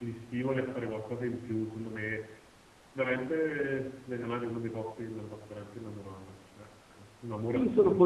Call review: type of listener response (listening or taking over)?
taking over